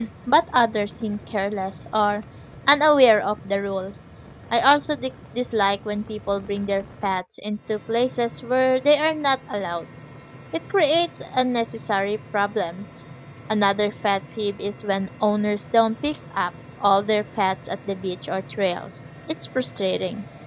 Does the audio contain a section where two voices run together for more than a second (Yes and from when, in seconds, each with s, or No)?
No